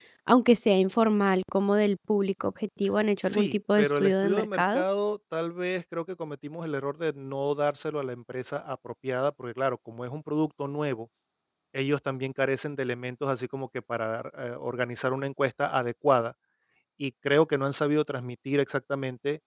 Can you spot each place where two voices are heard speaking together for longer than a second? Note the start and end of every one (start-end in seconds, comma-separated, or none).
3.2-4.8